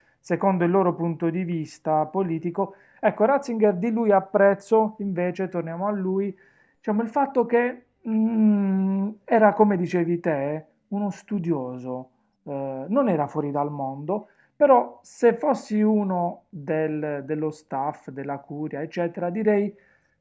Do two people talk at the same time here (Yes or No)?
No